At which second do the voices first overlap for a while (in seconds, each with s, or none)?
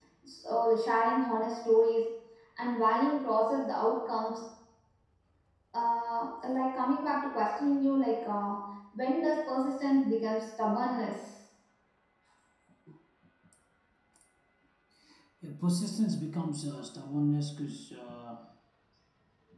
none